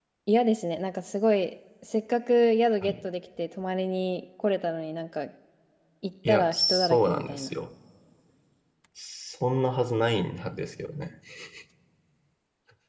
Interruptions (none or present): present